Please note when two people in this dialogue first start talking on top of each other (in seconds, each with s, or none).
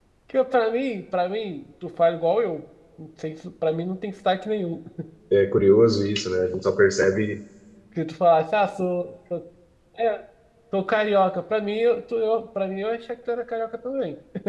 none